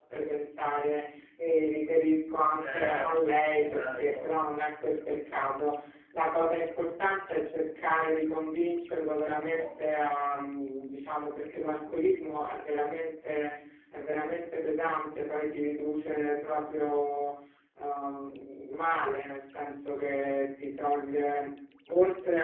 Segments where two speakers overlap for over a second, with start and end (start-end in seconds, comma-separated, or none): 2.7-4.2